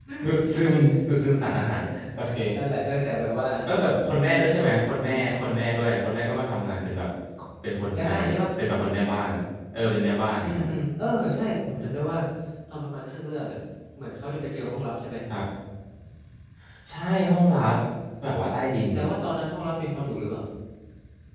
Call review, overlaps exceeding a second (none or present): none